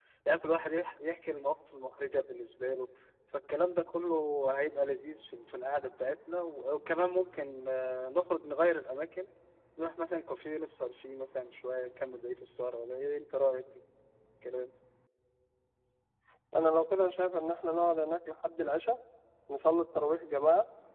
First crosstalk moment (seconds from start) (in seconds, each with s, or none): none